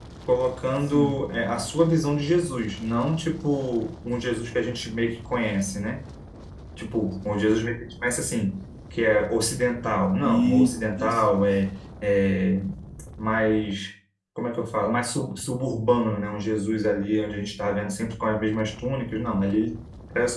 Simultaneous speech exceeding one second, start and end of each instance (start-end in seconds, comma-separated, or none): 10.2-11.6